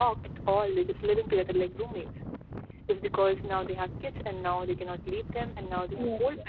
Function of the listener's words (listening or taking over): listening